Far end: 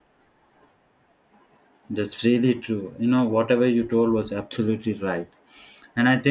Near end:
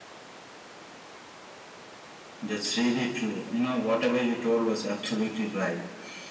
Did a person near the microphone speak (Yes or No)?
No